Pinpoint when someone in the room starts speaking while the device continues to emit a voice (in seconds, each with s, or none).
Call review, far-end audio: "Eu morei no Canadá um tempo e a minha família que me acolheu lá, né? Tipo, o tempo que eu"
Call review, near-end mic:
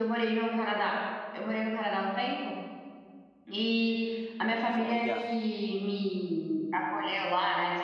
4.7 s